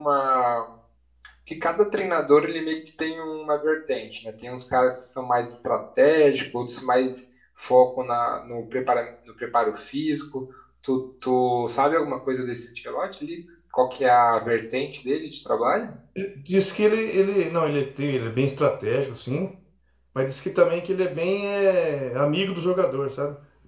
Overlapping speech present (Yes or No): No